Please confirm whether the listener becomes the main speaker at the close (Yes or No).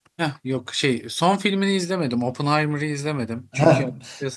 No